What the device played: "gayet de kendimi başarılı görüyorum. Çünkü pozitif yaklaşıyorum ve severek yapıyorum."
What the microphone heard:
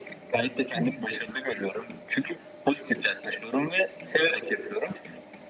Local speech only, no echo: Tabii.

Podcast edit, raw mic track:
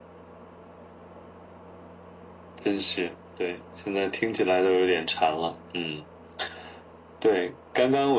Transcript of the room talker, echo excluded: none

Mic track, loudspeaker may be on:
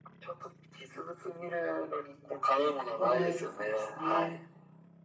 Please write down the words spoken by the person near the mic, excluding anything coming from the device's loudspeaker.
覚えてるんですね。

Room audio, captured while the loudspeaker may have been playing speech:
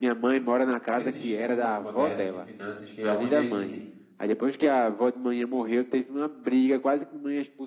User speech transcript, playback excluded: nesses gurus modernos de finanças que alguns deles dizem,

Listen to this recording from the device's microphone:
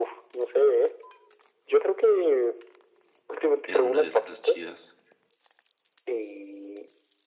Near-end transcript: Era una de esas chidas

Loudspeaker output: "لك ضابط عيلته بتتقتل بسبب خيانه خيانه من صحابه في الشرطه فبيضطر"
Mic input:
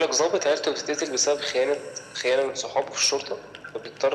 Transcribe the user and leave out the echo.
none

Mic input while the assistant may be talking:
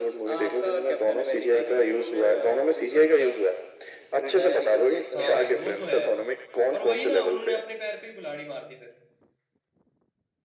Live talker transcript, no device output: हाँ भाई वो तो है पर वही ना उन्होंने अपने पैर पे ही कुल्हाड़ी मार दी फिर

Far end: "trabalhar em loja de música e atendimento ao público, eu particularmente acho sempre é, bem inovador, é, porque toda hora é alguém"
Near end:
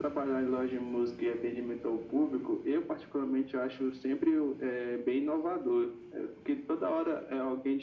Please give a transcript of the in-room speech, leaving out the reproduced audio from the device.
none

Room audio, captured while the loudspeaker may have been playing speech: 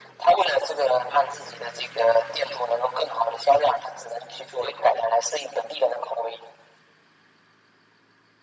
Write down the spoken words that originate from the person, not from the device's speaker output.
none

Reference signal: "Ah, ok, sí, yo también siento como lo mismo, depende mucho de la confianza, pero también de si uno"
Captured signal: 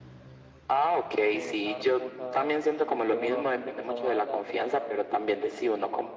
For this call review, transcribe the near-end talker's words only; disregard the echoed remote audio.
de dejar cosas eh, que uno siente que son malas, dejarlas

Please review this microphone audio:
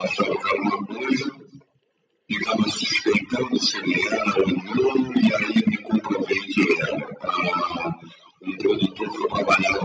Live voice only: none

